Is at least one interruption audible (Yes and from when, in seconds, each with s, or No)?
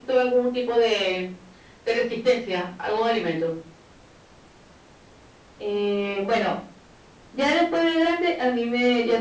No